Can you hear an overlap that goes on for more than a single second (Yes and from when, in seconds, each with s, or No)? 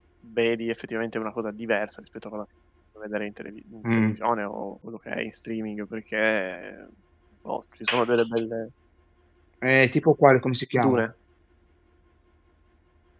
No